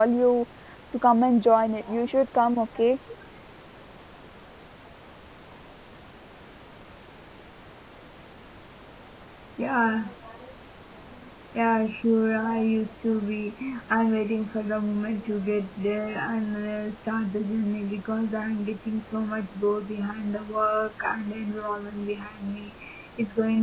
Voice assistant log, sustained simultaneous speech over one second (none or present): none